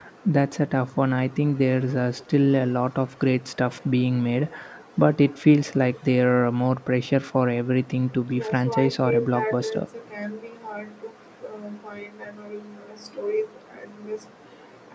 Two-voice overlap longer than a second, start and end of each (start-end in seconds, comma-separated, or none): 8.4-9.8